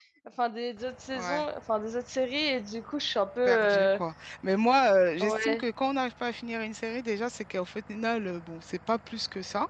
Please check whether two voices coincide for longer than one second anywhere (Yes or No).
No